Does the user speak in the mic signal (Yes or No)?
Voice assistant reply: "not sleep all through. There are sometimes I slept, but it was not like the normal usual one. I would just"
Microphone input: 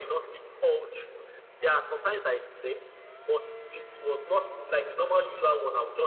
No